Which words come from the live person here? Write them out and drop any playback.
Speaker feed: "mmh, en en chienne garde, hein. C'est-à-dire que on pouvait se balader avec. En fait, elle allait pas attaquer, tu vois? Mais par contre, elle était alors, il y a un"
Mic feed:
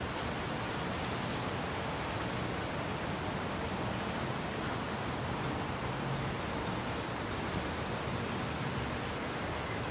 none

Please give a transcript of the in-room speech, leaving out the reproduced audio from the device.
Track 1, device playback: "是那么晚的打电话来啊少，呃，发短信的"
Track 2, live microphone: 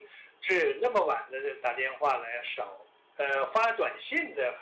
none

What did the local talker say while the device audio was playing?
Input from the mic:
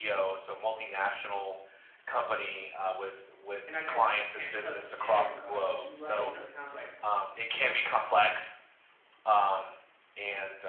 and I guess you can't trust everybody because you're right. It's certain times like

